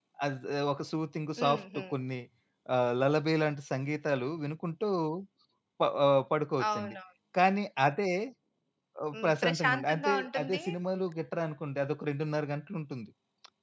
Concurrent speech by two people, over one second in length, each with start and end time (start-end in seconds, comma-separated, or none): 9.1-10.6